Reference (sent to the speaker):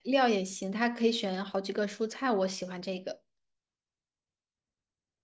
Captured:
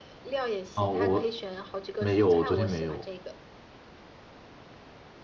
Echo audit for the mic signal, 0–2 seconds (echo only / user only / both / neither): both